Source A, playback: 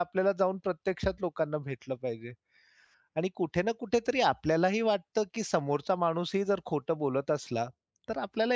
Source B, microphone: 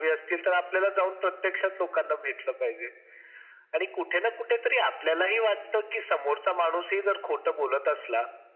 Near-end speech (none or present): none